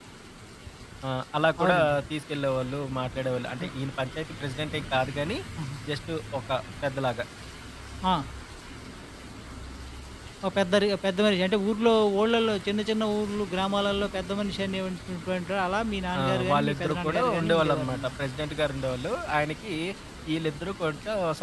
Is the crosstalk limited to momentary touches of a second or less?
No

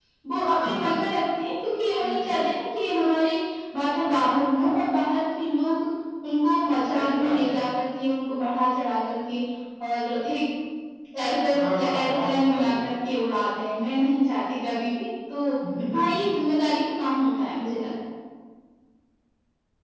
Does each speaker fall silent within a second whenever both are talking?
No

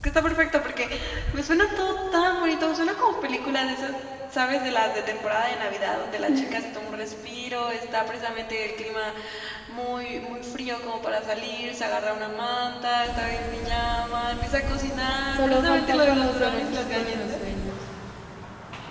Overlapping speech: Yes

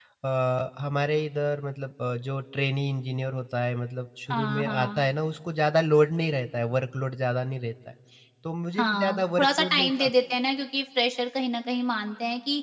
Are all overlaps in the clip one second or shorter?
No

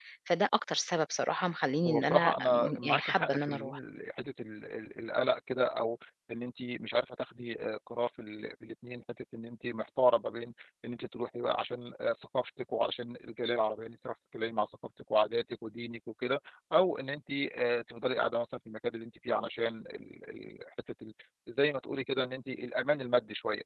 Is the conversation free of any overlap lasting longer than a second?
No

